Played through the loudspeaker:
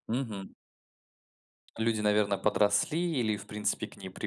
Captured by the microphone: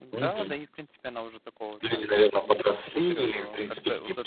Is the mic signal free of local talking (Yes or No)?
No